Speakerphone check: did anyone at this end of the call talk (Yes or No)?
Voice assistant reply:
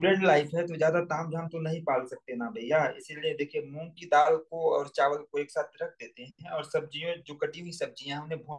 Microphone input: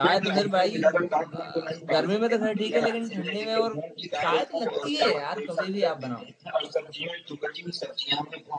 Yes